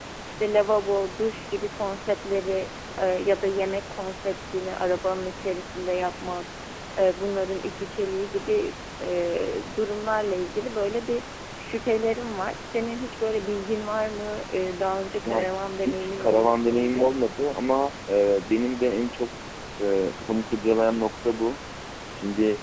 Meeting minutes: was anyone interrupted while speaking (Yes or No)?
Yes